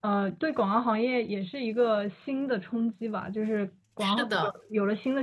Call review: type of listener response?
listening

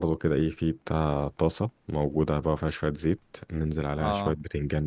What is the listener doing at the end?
listening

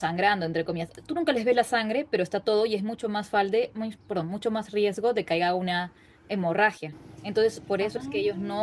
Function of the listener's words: listening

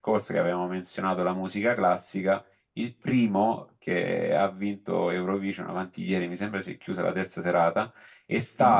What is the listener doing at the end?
listening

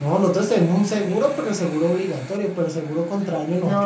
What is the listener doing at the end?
taking over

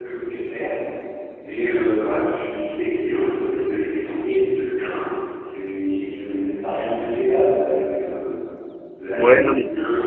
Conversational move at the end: taking over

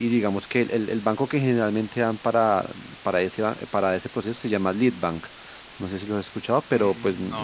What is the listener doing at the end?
taking over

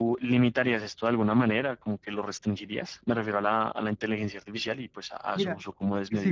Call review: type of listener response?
taking over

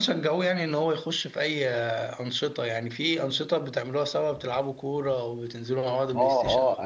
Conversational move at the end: taking over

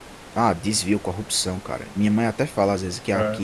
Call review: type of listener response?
listening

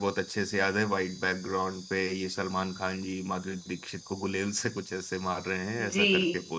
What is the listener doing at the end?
taking over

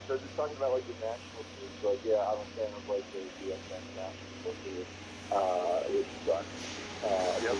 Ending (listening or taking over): listening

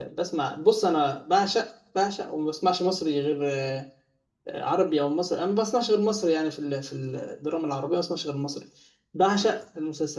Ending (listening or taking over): listening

